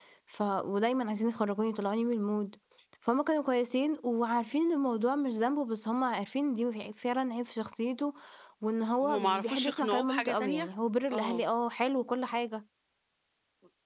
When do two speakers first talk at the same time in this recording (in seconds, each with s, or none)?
9.0 s